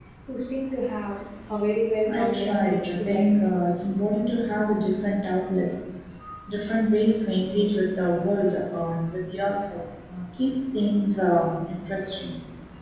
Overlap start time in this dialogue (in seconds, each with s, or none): 2.0 s